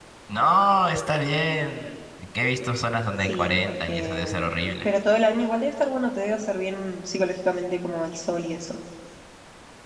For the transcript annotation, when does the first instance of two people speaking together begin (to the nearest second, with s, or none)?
3 s